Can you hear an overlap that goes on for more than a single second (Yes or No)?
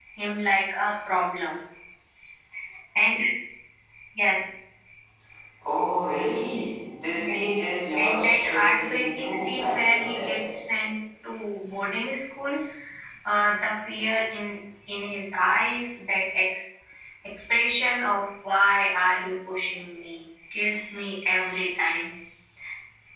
Yes